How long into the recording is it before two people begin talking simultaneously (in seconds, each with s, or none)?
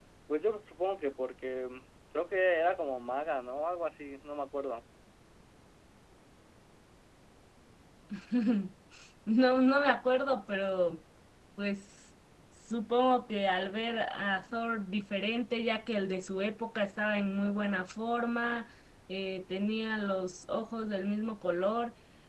none